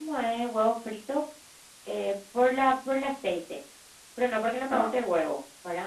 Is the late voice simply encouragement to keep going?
Yes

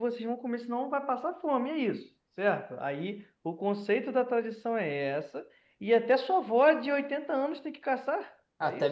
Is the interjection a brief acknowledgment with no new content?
No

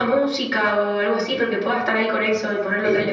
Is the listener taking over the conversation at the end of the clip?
Yes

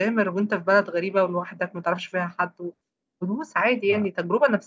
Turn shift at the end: No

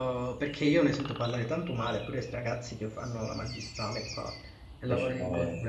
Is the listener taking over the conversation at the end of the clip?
No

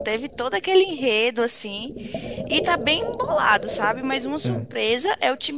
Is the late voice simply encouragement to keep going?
Yes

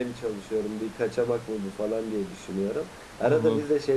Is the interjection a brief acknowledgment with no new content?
Yes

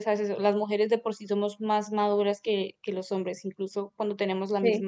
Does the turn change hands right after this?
No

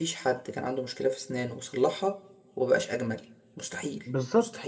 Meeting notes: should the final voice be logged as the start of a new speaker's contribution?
Yes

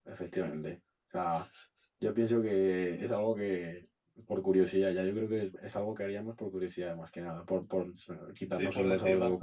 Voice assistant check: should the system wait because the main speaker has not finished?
No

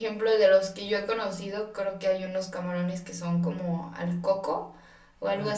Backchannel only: Yes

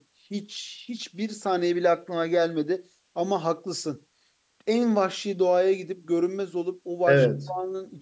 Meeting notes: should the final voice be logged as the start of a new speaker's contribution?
No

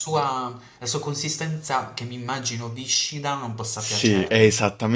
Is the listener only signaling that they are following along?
No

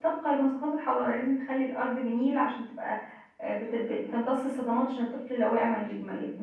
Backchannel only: Yes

